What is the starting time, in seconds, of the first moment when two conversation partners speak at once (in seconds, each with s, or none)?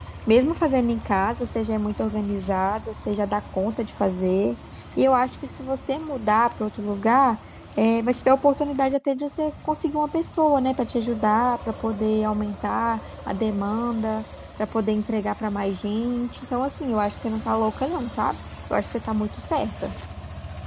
none